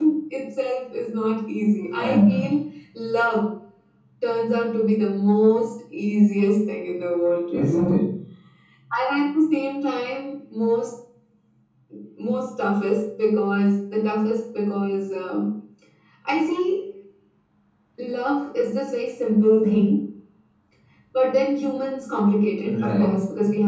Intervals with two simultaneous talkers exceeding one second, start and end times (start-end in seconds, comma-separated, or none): none